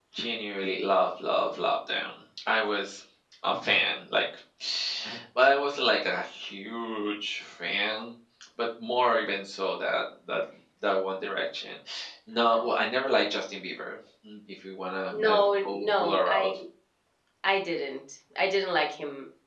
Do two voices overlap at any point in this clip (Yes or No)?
Yes